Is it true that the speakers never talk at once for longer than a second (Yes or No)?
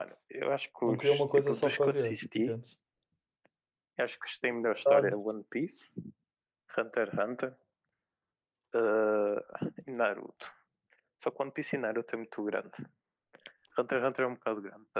No